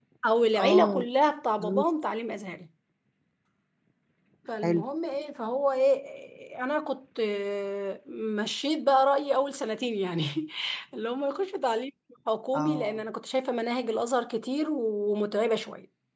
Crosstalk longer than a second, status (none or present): none